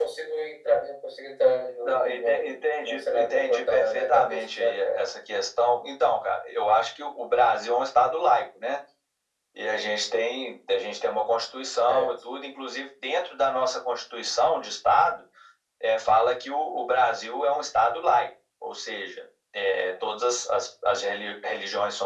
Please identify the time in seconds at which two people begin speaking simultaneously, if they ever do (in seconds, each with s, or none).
1.8 s